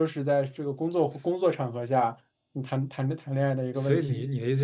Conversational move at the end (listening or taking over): taking over